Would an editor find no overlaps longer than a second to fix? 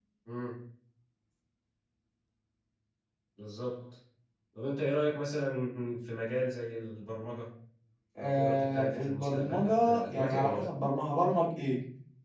No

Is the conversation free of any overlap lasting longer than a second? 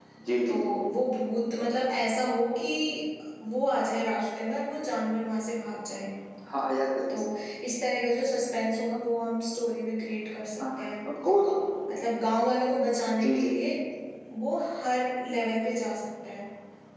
Yes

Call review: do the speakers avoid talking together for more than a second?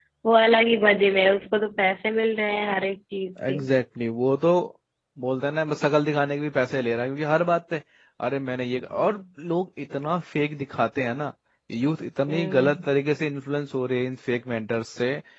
Yes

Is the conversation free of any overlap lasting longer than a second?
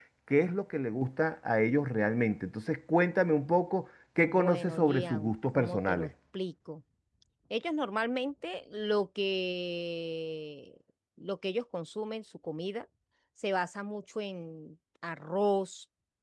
No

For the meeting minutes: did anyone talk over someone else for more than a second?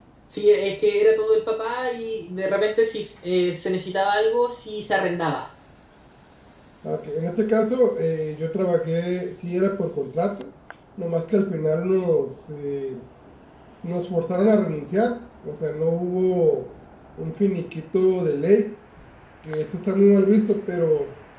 No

